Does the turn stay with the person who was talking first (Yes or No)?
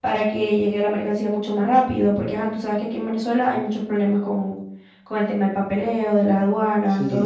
No